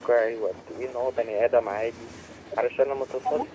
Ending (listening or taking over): taking over